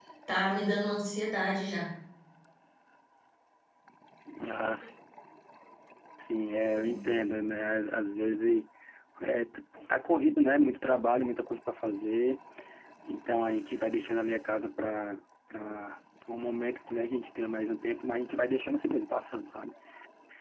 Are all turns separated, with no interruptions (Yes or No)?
Yes